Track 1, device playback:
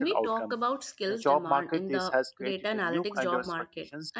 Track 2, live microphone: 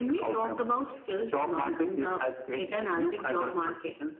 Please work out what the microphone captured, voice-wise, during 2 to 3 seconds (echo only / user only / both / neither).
echo only